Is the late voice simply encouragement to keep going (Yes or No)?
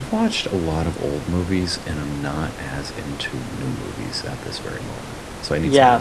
No